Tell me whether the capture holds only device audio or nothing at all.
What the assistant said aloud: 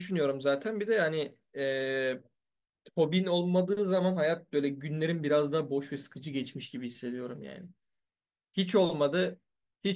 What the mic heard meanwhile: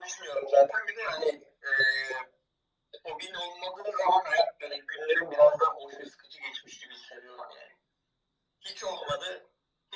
Yes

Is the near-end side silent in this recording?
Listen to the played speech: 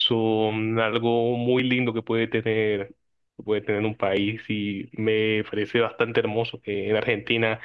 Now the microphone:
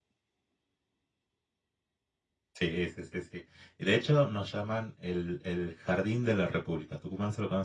No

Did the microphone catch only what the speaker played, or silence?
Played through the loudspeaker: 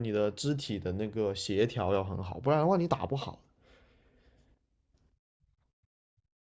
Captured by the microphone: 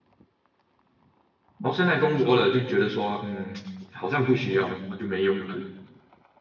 No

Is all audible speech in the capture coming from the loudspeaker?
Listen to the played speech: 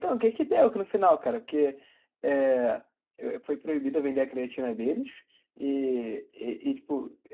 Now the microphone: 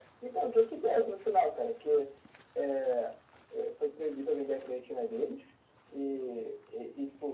Yes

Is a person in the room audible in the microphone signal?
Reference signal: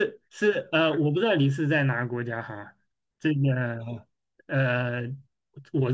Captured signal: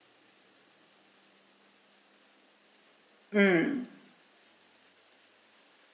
Yes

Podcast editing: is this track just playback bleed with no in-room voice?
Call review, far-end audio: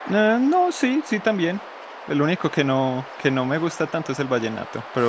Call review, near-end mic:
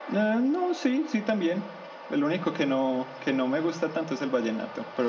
Yes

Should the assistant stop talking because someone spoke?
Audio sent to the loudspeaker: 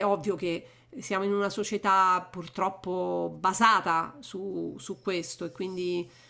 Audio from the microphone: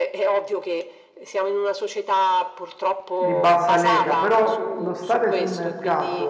Yes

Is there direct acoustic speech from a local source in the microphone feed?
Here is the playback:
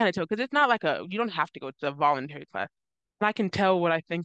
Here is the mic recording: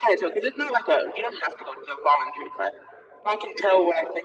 No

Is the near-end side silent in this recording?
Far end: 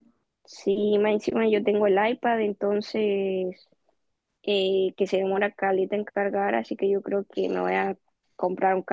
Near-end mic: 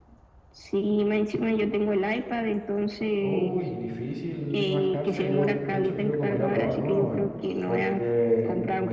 No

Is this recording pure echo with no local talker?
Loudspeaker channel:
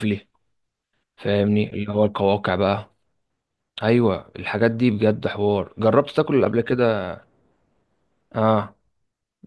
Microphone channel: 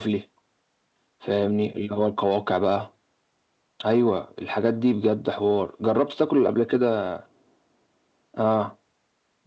Yes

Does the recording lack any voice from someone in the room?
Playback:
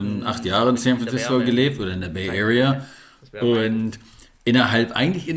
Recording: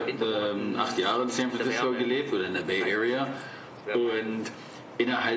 Yes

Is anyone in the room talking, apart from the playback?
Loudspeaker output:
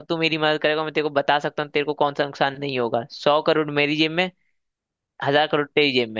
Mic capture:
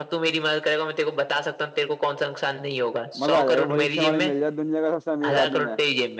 Yes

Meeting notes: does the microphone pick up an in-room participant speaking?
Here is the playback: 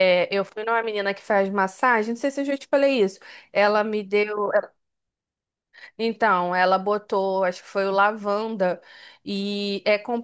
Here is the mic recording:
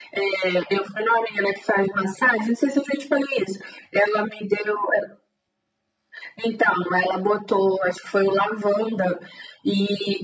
No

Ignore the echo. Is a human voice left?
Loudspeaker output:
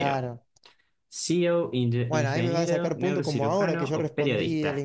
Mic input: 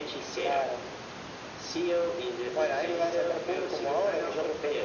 No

